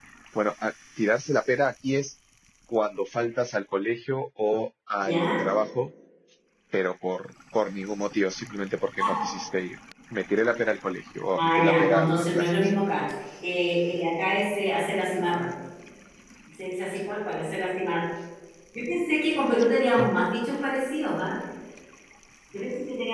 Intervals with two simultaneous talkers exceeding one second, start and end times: 11.3-12.7

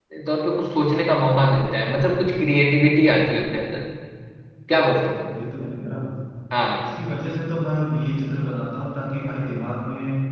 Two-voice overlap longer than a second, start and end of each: none

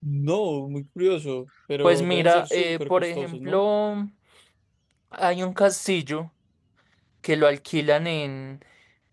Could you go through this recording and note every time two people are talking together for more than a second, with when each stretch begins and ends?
1.8-3.6

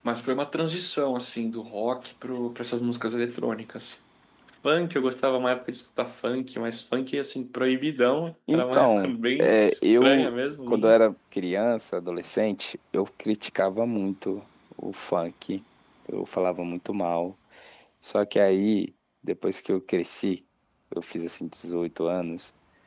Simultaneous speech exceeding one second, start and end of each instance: 8.5-10.3

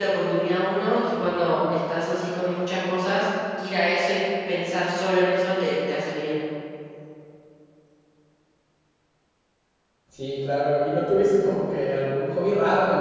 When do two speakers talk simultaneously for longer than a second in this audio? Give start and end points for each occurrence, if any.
none

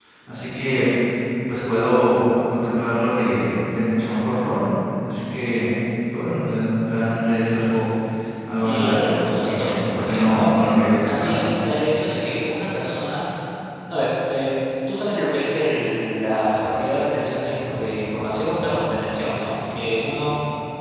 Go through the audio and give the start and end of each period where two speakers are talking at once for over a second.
8.6-10.5

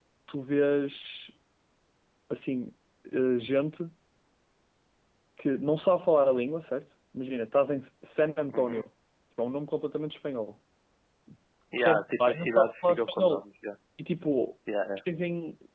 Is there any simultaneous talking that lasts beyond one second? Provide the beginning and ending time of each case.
11.8-13.4

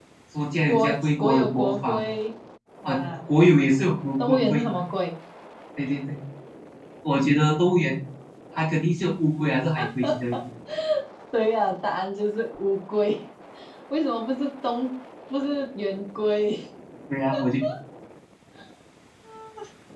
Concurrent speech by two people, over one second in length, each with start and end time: 0.7-2.0

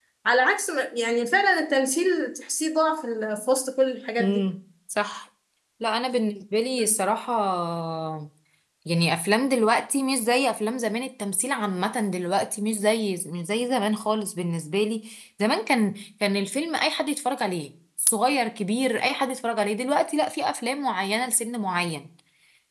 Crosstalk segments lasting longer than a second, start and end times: none

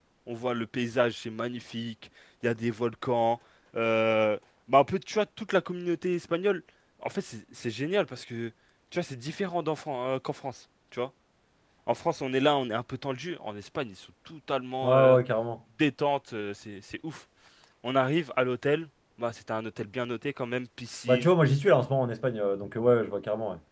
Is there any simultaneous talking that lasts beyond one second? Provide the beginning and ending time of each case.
none

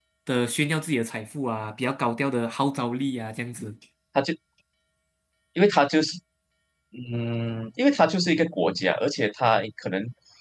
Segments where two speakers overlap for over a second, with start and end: none

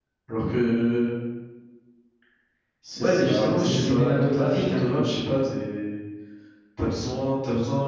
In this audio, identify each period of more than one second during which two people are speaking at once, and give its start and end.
3.0-5.0

